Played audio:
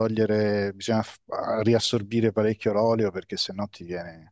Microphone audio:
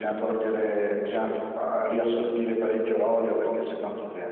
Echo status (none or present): present